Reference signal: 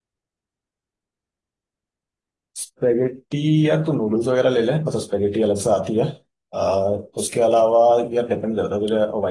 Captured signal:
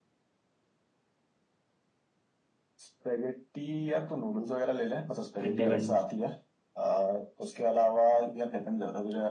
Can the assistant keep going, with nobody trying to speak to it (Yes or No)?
No